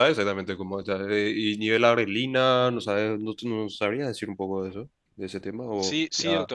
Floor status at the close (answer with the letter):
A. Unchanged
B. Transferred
B